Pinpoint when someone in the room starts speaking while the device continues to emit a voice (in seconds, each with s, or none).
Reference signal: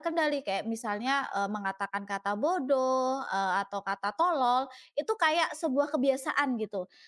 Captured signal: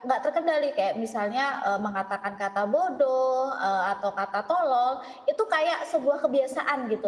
none